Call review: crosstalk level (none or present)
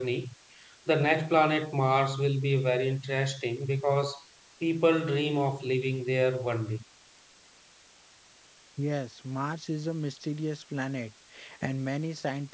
none